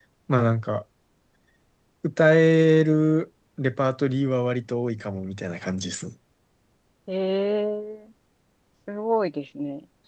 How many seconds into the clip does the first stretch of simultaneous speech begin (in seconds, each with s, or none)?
none